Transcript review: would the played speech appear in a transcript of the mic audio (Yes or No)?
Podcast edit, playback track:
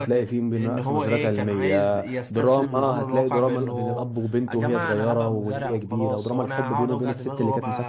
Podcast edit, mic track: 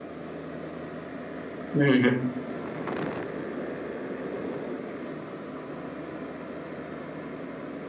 No